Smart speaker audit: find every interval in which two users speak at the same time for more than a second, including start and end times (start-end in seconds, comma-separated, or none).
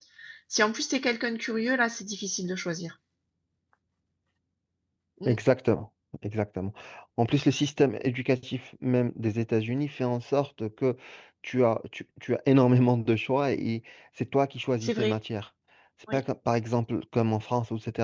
none